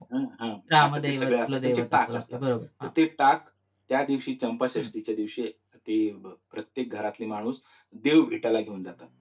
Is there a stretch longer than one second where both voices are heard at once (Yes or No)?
Yes